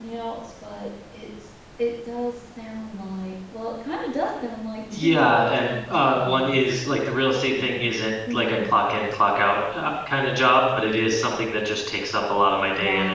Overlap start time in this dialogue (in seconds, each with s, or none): 4.9 s